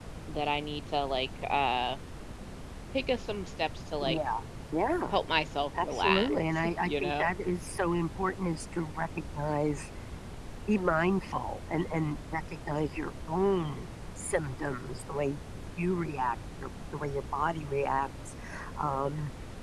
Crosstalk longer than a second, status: present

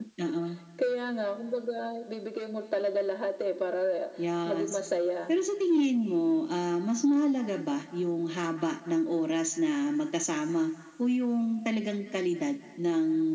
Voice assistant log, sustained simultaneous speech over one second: none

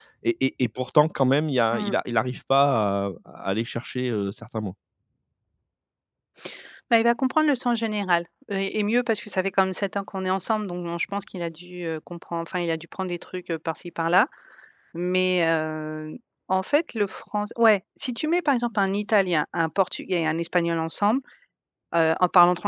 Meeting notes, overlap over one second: none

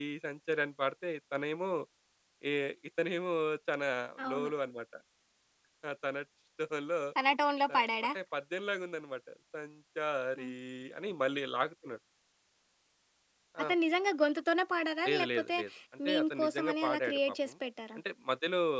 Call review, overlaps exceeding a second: present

